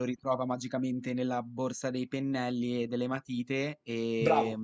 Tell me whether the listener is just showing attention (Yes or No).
No